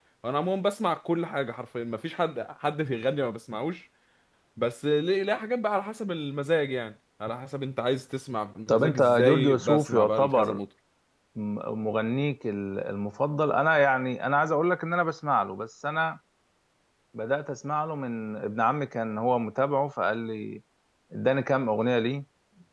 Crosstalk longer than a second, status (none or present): present